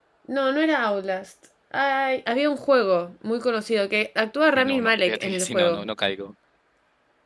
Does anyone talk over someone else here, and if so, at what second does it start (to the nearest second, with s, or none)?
5 s